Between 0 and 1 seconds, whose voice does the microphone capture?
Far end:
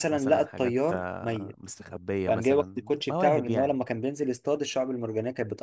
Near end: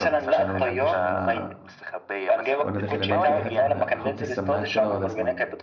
both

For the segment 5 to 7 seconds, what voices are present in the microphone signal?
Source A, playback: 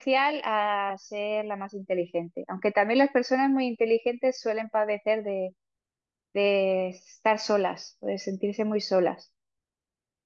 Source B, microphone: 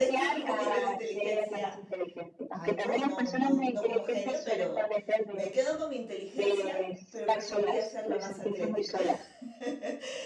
both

